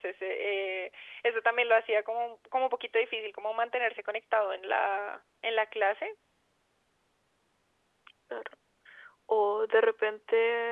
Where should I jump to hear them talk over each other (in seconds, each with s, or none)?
none